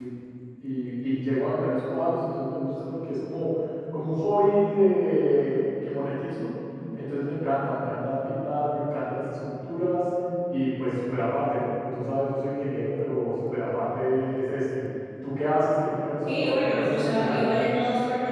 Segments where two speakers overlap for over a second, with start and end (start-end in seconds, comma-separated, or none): 16.2-17.4